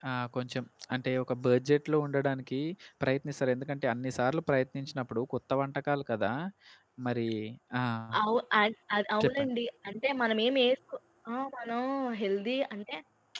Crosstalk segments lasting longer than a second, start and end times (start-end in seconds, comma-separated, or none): none